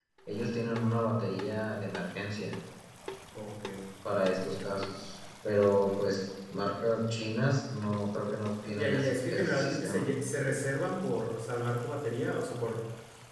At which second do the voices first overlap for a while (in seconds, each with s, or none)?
8.7 s